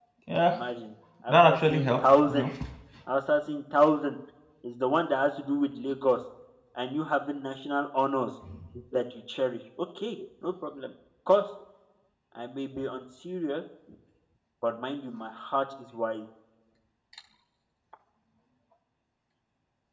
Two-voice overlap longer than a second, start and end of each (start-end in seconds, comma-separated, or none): 1.3-2.5